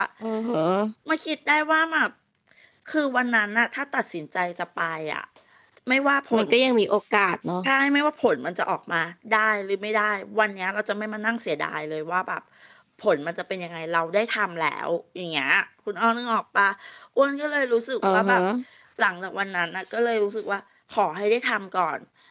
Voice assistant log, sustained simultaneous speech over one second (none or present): none